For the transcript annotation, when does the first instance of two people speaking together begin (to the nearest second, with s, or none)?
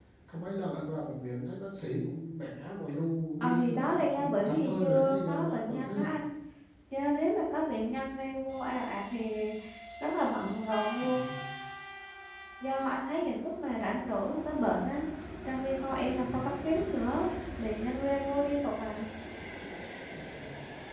3 s